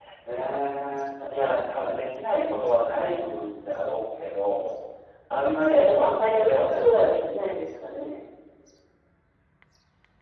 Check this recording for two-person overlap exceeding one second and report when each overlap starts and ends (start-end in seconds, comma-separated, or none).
5.7-7.1